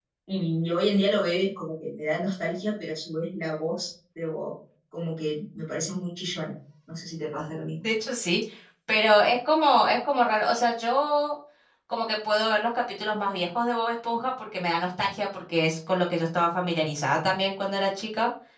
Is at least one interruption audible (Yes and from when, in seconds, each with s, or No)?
No